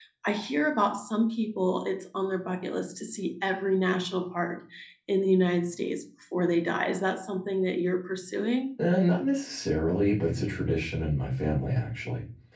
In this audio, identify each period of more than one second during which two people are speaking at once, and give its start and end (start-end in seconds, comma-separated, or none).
none